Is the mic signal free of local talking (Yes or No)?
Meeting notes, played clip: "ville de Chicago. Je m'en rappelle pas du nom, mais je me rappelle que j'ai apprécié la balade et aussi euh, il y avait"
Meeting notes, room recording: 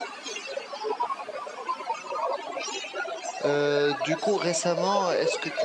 No